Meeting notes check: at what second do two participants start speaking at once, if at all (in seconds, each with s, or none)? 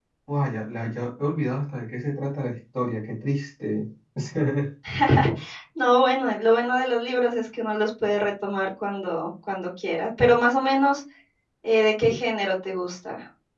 none